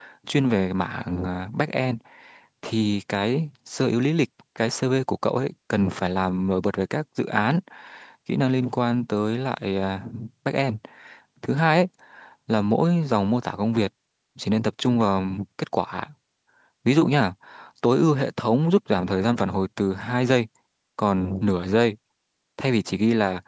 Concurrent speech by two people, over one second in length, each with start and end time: none

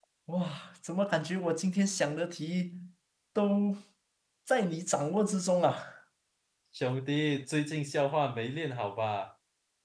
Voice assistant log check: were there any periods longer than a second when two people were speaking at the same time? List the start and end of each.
none

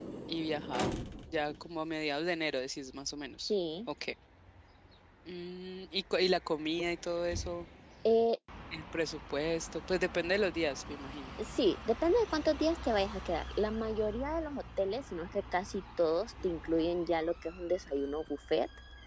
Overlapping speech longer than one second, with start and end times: none

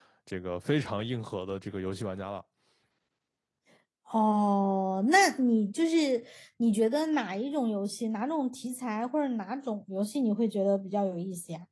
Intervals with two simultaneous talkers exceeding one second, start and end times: none

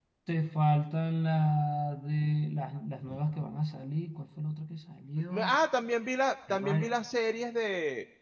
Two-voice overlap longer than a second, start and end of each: none

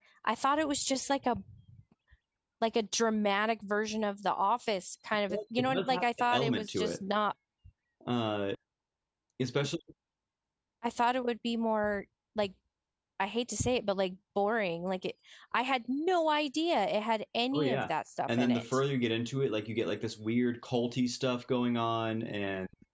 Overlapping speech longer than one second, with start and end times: 5.3-7.0

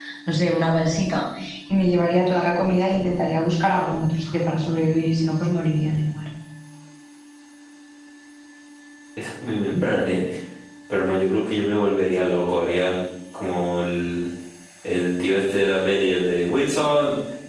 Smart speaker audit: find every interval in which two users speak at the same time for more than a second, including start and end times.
none

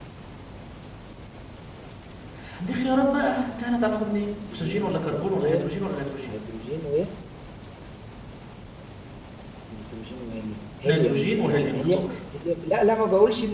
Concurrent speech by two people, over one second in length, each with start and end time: 4.3-5.8, 10.8-12.1

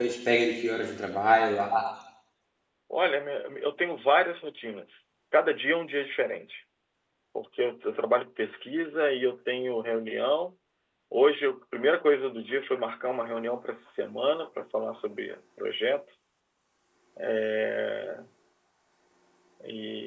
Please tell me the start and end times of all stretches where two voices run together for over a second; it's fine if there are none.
none

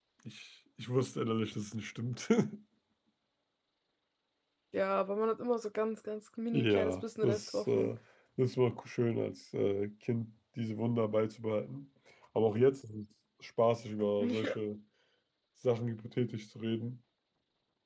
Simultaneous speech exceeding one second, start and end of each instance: 6.5-7.9

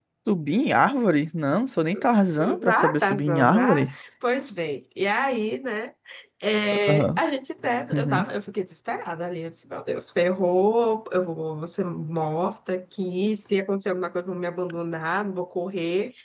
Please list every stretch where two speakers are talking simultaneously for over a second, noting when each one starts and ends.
2.6-3.9

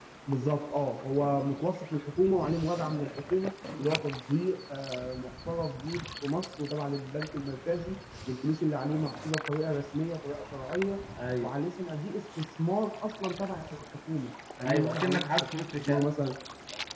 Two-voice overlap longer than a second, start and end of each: 14.7-16.1

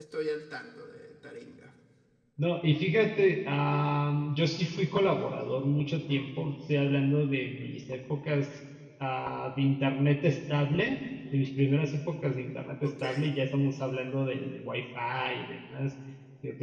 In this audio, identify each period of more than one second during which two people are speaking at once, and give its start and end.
none

